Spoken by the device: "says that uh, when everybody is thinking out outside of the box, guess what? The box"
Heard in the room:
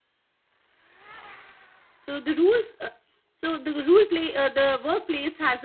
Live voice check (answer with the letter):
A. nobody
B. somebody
B